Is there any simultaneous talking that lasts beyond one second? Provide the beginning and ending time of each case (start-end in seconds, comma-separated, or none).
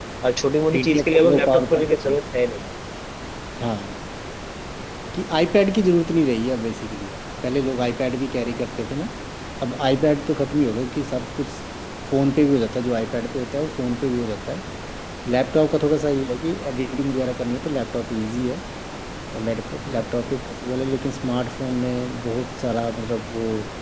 0.7-2.2